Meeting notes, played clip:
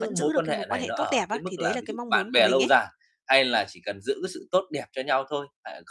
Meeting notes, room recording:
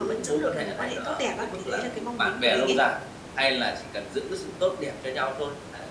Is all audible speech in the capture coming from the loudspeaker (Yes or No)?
Yes